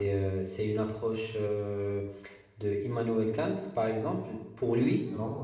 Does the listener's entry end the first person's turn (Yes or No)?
No